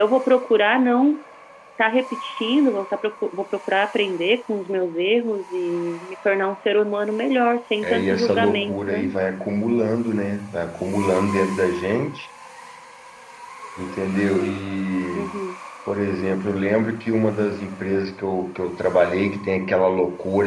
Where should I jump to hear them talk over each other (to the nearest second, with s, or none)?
8 s